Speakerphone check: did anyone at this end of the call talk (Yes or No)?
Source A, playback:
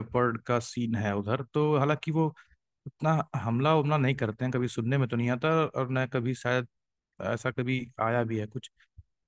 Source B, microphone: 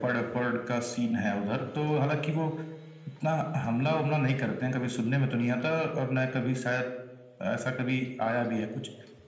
No